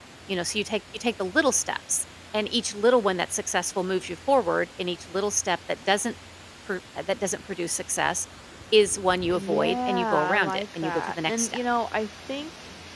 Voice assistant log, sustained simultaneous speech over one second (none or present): present